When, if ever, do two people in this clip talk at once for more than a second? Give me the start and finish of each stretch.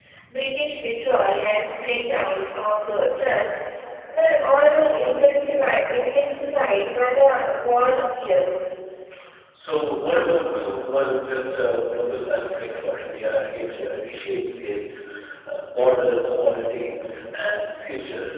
none

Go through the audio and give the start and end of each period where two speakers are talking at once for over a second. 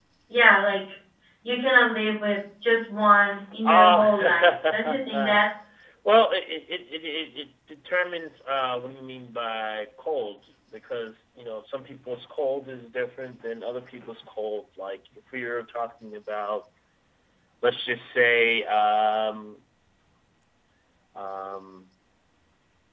3.6-5.5

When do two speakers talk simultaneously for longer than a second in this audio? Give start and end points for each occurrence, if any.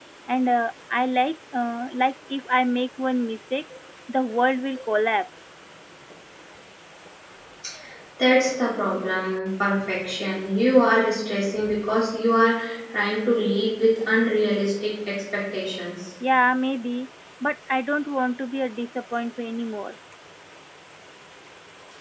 none

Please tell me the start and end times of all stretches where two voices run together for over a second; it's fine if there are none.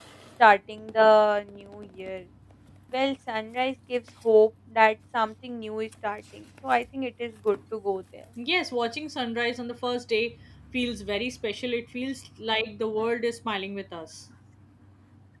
none

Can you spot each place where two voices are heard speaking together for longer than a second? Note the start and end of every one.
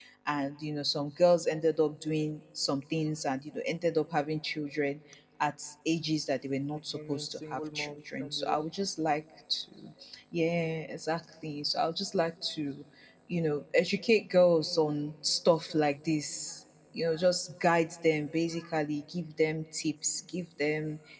6.9-8.6

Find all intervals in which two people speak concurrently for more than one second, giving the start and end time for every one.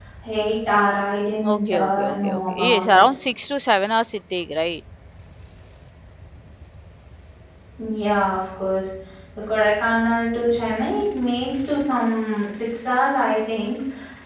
1.4-3.0

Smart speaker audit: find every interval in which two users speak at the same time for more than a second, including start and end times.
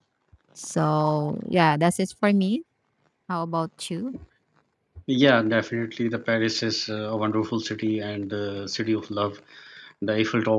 none

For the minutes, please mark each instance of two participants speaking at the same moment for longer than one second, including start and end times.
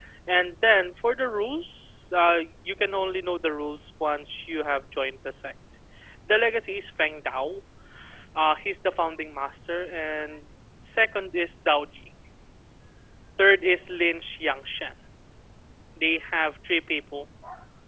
none

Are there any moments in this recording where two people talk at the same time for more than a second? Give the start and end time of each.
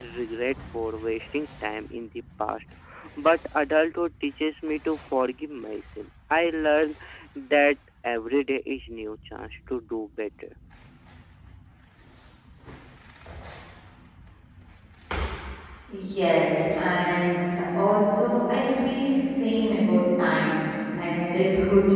none

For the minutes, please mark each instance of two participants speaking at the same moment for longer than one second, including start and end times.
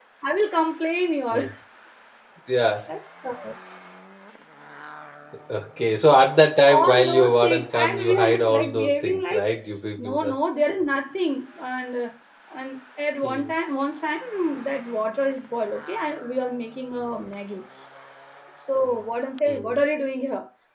6.7-9.4

